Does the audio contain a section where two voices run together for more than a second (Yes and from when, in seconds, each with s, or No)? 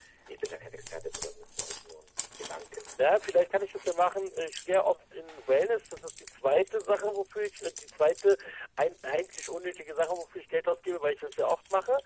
No